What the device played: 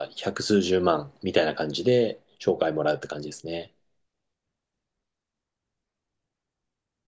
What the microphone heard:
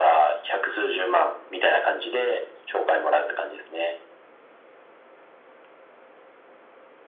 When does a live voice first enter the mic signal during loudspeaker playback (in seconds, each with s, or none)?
none